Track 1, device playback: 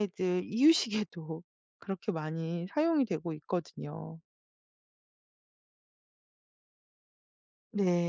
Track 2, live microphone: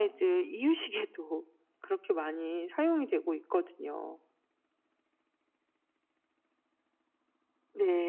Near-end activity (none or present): none